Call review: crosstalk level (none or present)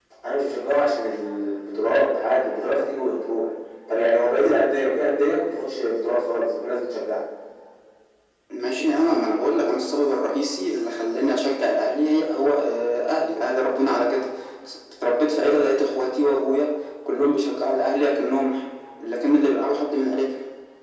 none